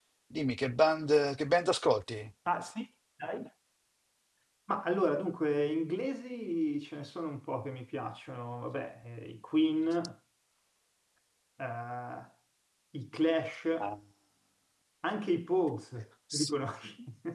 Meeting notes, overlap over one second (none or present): none